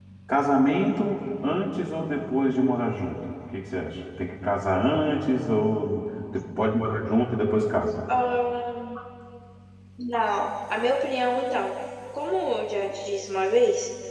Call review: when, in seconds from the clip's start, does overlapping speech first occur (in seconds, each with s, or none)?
none